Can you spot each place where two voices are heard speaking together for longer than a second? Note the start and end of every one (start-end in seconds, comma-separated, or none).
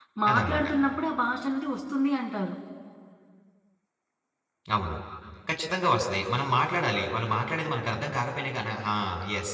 none